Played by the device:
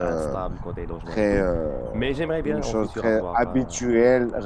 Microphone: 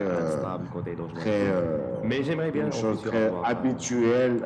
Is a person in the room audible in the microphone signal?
No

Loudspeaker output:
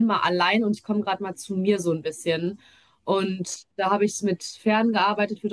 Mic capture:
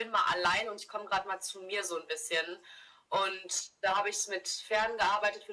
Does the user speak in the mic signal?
No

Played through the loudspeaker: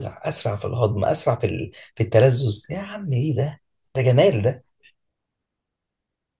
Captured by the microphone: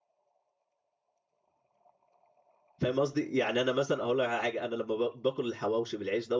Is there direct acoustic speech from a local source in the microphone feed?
Yes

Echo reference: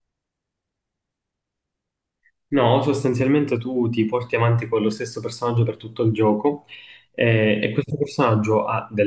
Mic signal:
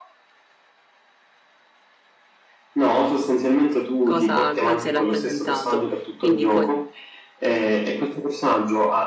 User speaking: Yes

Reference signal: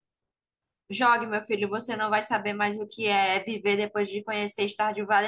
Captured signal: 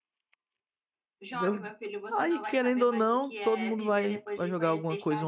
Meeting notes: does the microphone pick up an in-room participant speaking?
Yes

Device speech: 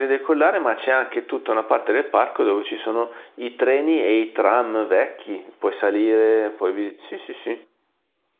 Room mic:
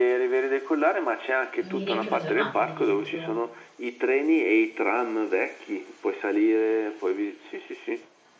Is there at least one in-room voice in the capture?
Yes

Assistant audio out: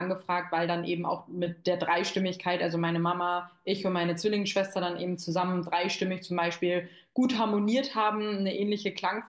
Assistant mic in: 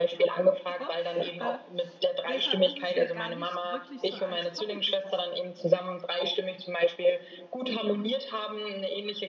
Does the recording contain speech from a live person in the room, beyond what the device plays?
Yes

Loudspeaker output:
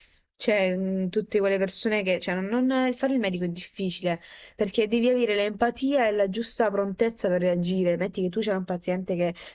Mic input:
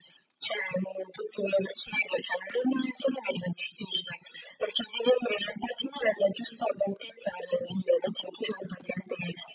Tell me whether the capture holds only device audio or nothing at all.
Yes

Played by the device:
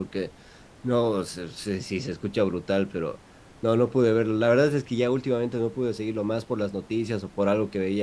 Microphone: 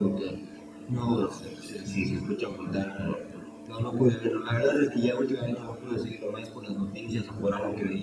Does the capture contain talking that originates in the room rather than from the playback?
No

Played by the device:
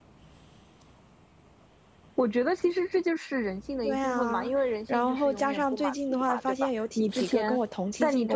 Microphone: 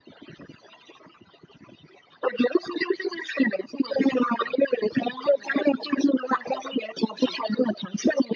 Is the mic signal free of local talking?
Yes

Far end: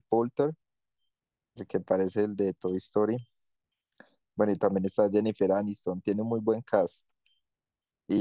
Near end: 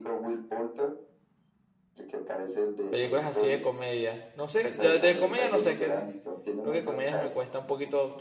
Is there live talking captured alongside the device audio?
Yes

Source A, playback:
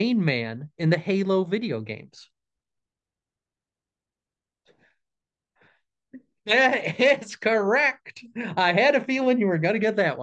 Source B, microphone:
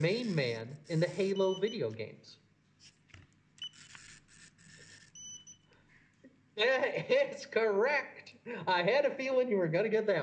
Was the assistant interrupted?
No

